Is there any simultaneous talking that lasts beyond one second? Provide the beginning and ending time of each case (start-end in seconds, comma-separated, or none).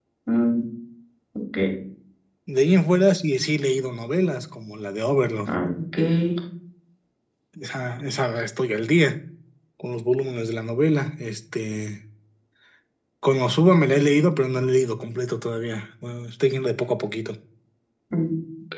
none